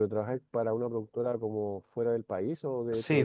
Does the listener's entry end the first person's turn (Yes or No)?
Yes